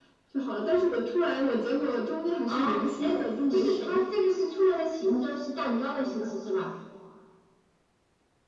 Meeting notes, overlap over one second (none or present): present